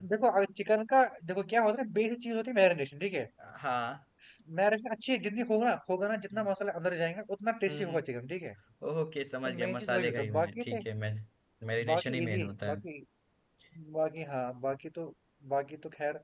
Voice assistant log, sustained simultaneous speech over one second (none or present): present